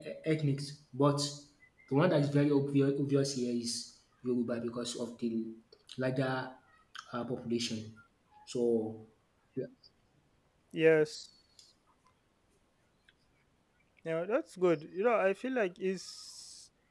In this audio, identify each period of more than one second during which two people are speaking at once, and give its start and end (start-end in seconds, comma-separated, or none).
none